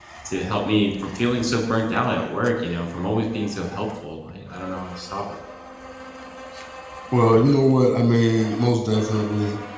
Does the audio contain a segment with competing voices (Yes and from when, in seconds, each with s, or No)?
No